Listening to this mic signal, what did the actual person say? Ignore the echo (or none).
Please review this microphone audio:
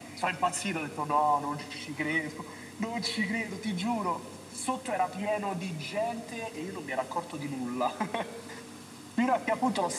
none